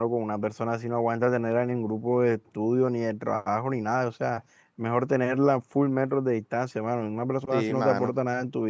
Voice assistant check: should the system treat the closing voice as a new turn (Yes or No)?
No